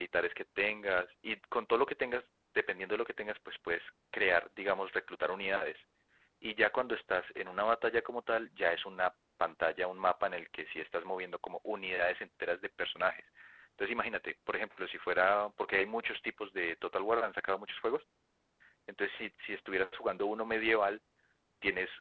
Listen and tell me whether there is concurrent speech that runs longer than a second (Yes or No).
No